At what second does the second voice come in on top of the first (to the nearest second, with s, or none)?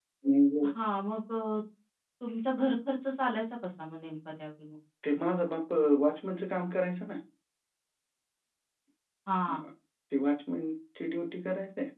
none